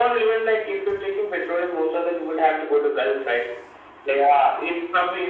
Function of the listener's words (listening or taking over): listening